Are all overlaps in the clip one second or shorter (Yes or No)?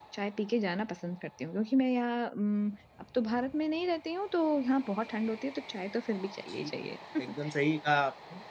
Yes